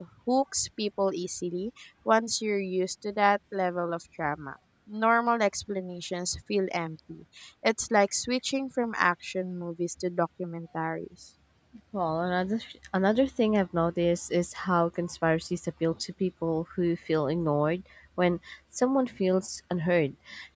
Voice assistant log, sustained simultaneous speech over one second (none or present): none